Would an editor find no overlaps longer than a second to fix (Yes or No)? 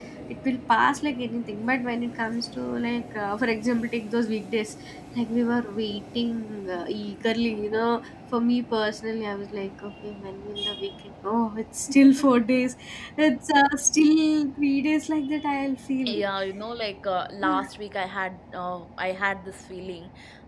Yes